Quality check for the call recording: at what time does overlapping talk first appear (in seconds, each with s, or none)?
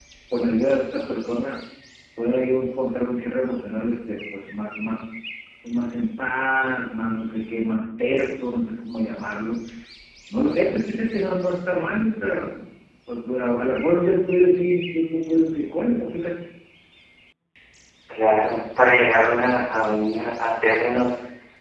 none